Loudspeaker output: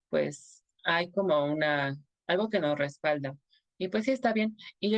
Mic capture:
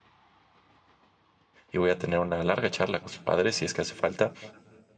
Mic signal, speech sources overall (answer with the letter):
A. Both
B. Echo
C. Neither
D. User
D